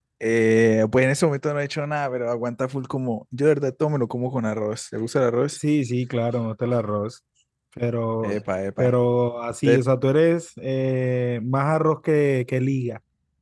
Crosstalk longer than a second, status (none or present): none